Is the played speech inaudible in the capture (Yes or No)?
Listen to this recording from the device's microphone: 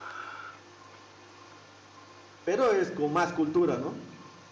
Yes